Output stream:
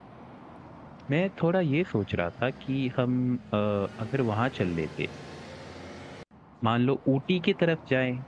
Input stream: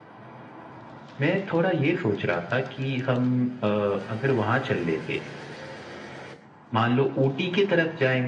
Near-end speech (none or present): none